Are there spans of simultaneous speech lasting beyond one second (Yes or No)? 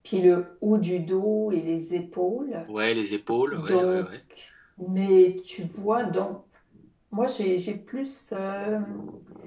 No